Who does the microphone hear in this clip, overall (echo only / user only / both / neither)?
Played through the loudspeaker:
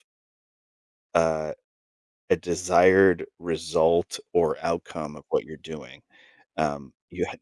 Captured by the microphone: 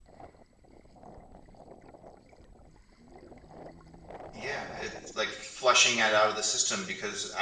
user only